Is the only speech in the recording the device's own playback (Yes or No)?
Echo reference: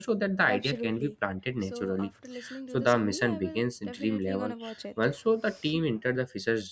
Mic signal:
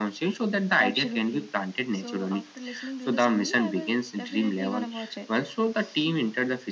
Yes